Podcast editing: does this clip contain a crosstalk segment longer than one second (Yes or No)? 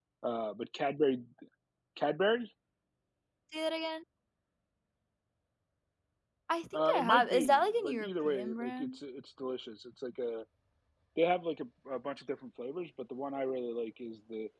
Yes